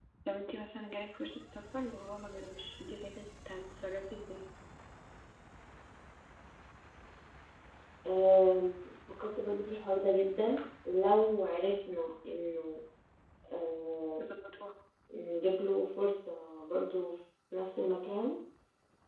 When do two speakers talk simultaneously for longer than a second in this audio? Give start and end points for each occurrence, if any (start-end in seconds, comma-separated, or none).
none